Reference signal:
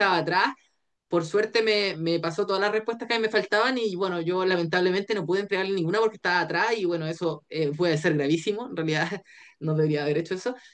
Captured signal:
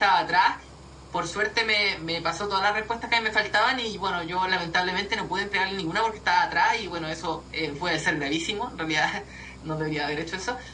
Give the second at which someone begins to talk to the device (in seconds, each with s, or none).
none